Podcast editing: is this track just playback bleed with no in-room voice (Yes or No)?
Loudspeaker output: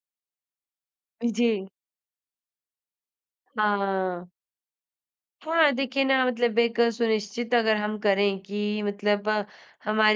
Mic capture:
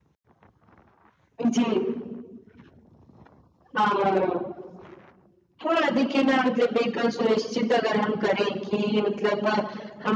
Yes